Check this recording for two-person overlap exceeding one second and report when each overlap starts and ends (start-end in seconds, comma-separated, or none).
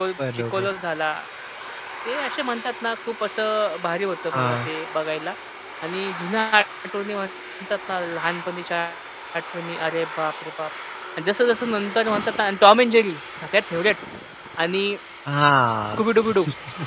none